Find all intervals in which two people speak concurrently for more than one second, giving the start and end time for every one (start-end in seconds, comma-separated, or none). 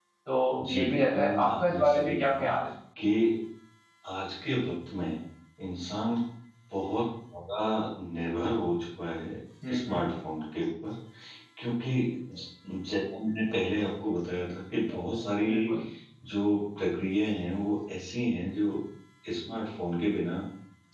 0.7-2.5